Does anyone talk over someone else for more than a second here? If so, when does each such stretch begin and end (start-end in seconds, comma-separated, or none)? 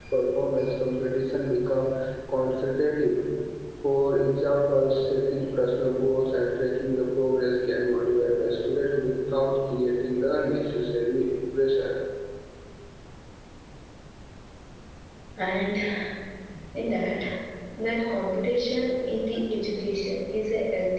none